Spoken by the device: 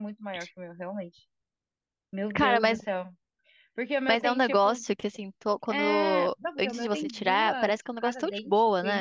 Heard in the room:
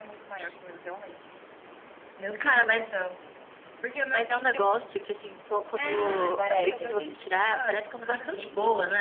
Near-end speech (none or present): present